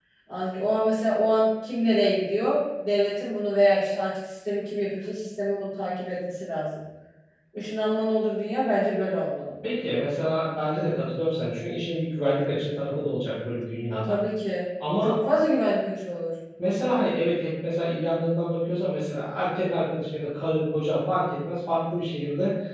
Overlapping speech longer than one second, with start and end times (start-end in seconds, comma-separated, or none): none